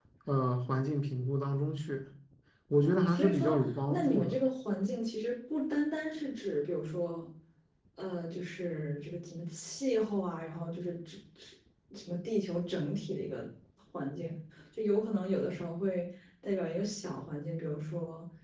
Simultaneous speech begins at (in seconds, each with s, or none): 2.8 s